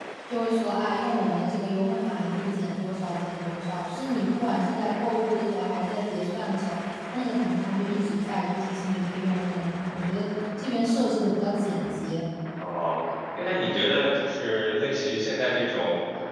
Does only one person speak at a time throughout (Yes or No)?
Yes